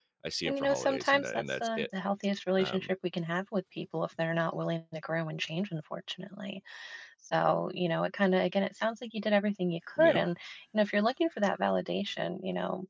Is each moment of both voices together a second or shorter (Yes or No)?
No